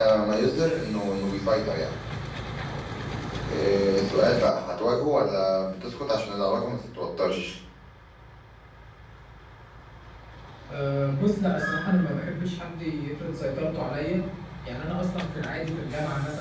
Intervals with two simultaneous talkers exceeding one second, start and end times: none

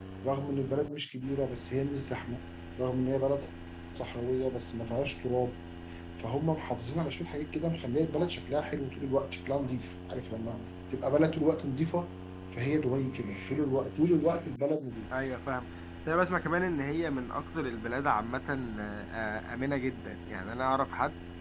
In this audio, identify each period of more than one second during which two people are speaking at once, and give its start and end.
none

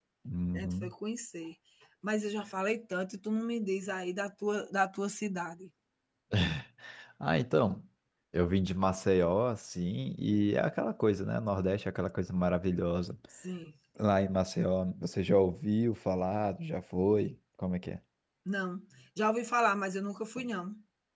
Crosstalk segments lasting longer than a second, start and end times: none

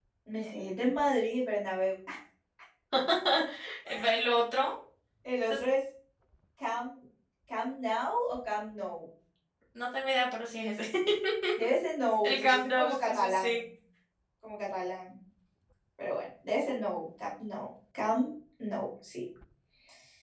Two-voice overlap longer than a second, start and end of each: 12.2-13.6

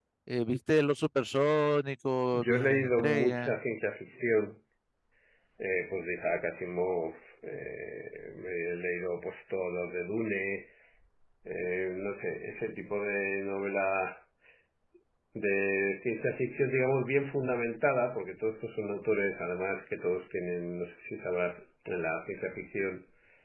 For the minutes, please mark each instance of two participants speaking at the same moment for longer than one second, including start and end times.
2.3-3.6

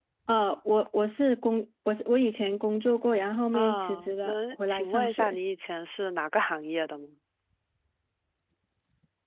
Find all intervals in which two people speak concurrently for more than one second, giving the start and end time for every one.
3.5-5.4

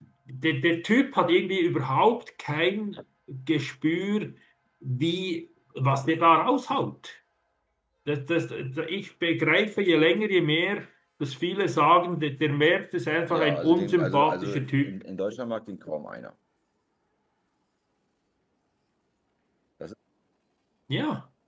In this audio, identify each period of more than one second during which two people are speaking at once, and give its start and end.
13.3-14.9

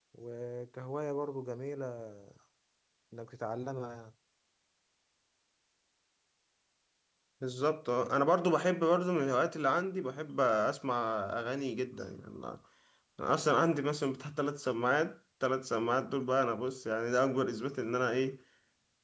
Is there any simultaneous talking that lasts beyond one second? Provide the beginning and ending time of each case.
none

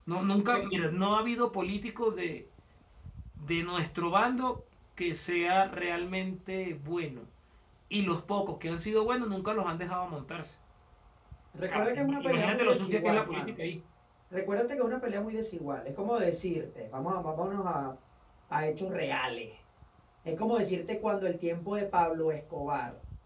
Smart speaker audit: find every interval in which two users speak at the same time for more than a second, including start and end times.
11.6-13.5

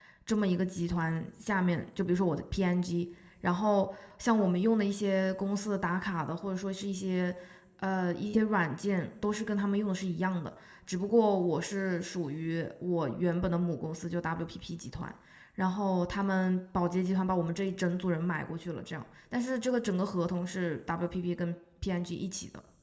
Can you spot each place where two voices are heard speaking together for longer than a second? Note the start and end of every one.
none

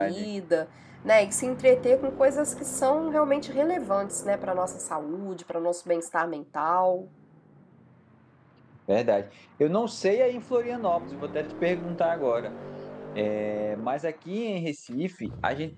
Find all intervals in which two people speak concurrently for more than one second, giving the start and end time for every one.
none

